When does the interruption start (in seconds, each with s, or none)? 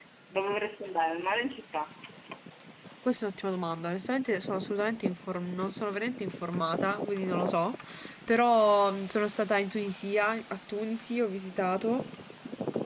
none